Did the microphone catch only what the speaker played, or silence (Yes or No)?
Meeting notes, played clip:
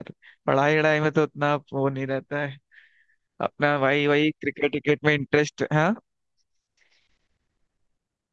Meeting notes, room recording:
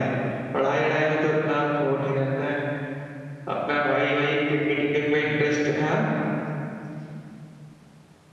Yes